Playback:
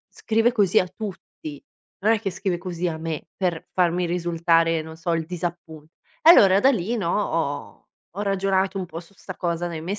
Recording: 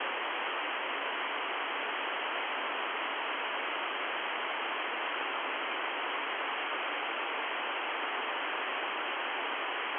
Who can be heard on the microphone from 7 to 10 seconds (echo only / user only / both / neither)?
neither